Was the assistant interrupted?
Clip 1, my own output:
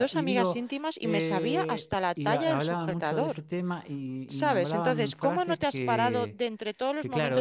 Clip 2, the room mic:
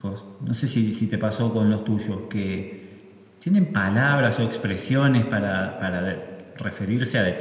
Yes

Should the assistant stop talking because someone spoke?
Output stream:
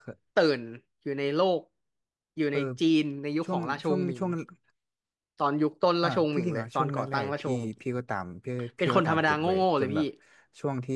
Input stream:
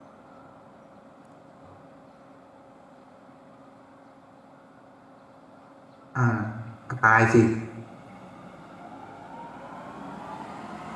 Yes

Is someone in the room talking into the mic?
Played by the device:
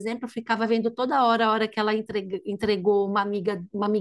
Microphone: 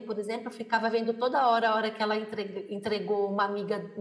No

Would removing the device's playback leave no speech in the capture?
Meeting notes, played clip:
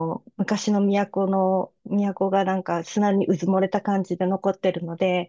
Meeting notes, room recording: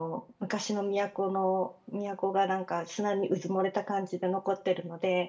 Yes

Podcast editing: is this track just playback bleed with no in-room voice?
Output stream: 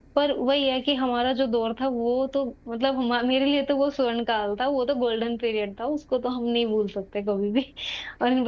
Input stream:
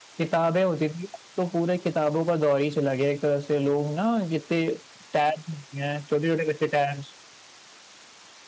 No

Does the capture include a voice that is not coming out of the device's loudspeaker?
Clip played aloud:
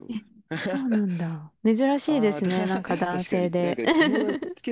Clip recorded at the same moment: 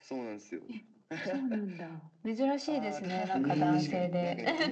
Yes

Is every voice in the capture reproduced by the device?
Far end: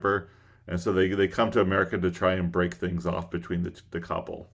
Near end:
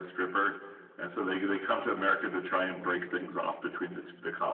Yes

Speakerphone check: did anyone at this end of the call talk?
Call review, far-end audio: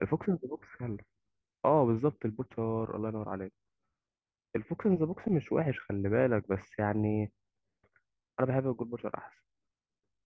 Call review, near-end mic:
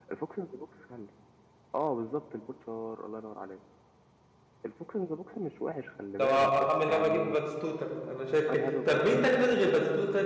Yes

